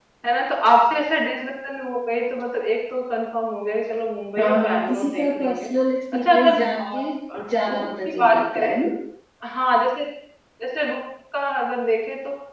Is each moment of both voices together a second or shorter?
No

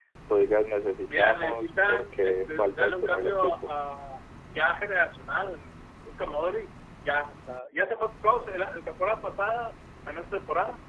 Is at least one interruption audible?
Yes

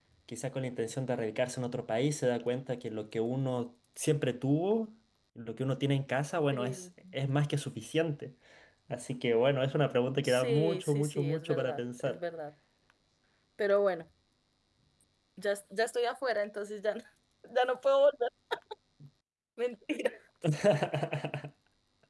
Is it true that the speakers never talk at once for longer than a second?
No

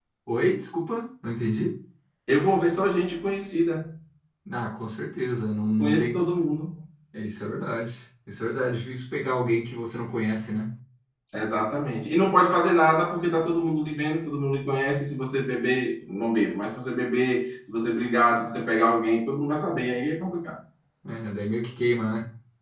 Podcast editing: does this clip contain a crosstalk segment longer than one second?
No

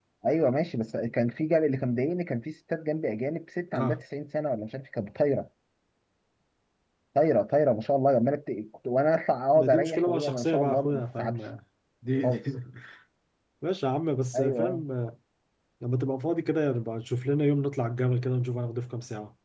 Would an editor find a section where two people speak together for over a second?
Yes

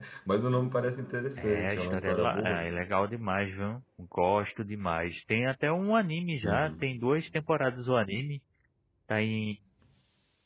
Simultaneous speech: Yes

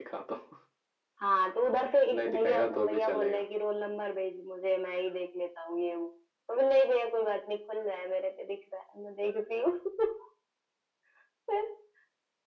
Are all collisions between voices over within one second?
No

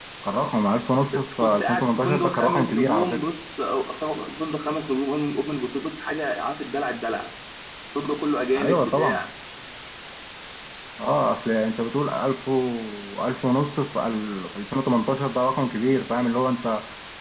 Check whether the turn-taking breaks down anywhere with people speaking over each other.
Yes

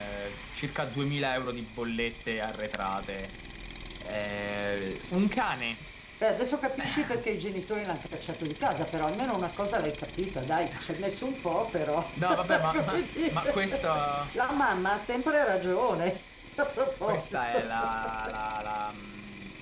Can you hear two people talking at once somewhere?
Yes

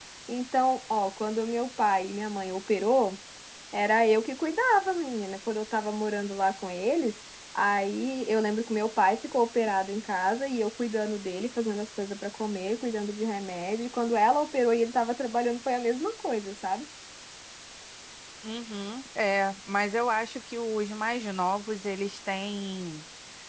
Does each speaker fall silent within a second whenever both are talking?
Yes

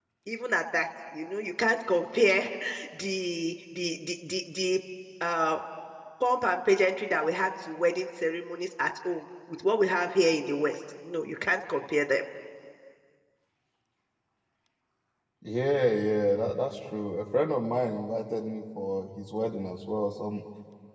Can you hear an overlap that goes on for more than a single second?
No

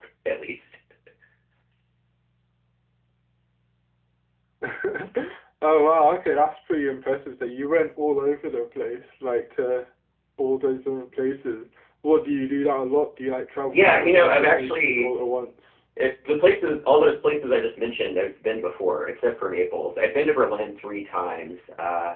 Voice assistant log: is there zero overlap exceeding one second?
No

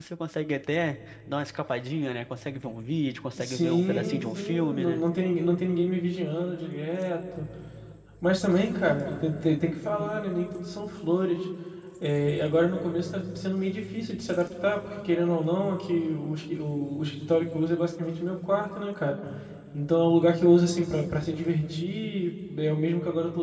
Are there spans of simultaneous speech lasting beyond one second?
Yes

